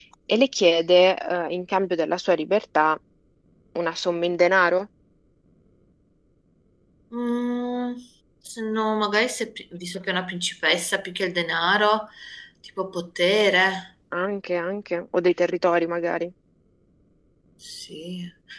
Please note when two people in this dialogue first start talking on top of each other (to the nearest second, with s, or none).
none